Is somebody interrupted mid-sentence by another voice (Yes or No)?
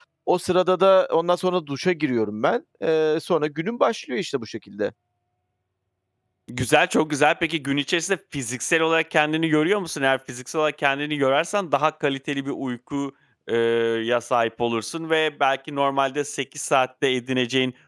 No